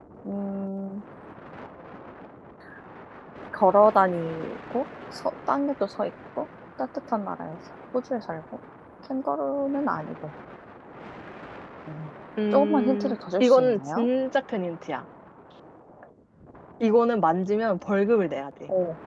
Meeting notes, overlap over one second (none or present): present